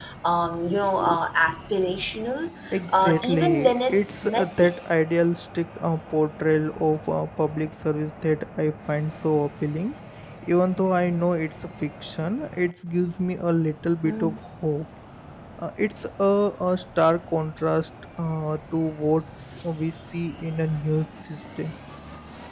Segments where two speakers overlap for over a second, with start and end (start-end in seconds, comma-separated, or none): 2.9-4.7